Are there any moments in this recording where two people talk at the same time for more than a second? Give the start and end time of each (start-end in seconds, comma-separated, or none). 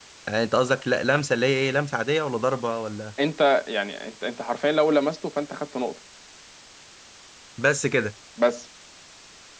none